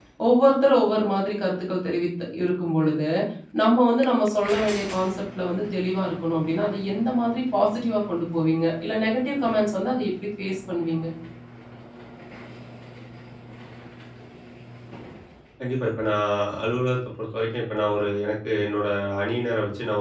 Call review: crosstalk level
none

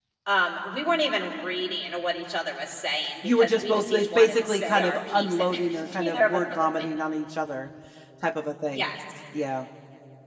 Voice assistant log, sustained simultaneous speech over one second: present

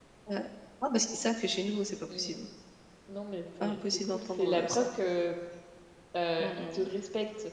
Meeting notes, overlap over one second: present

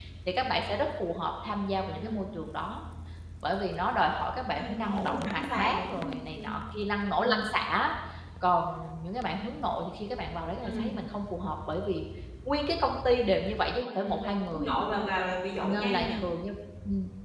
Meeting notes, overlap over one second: present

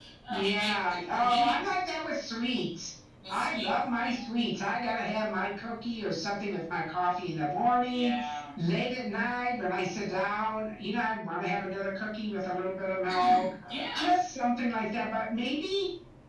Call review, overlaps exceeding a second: present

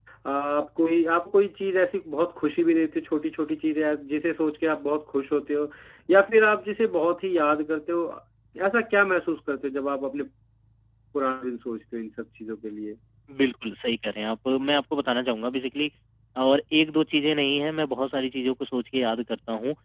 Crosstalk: none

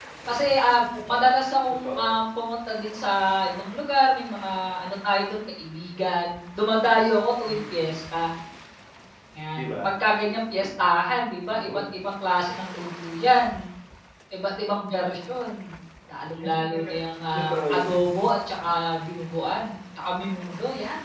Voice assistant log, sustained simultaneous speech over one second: none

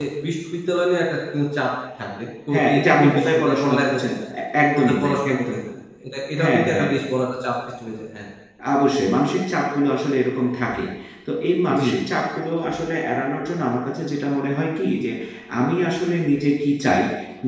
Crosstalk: present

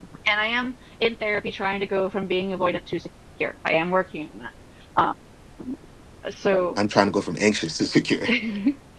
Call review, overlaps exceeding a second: none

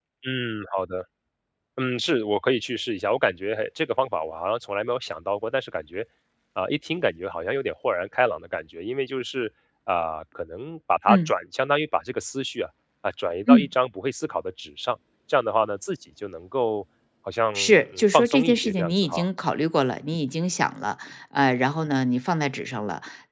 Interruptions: present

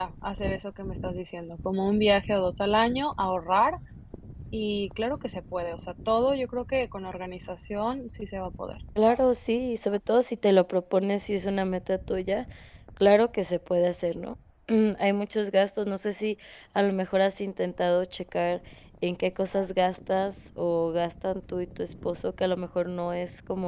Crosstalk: none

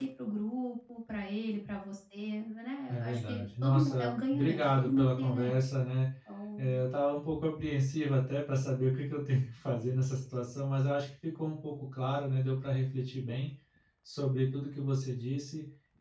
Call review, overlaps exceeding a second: present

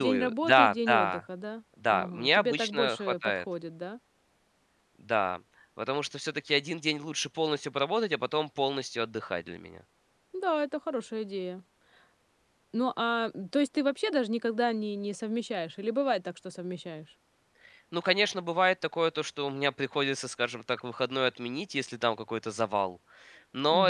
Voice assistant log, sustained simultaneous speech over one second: present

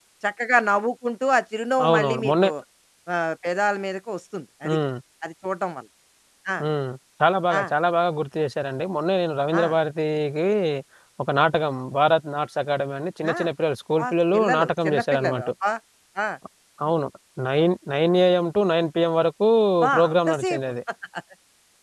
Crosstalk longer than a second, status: present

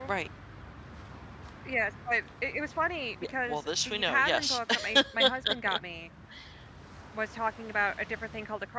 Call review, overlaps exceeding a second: present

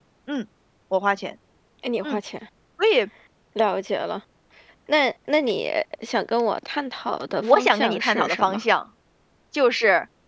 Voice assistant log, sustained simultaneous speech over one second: present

